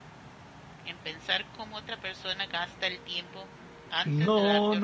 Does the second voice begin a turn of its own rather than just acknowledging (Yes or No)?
Yes